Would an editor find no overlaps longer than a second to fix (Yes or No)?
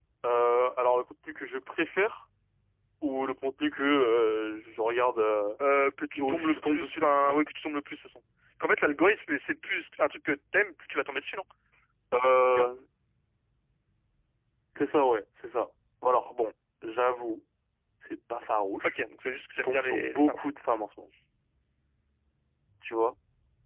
No